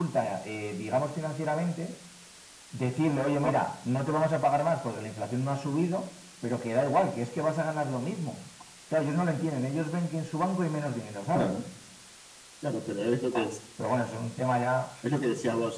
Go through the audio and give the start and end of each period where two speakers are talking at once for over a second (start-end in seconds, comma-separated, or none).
none